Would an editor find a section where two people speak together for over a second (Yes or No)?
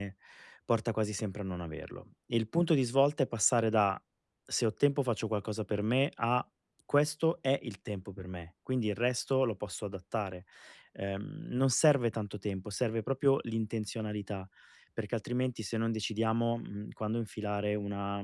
No